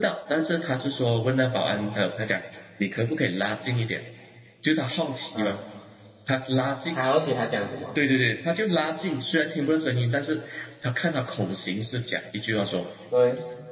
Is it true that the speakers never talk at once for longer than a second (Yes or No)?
Yes